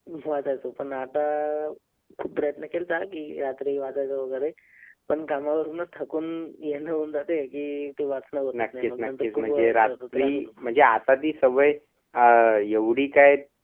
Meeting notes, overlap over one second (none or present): present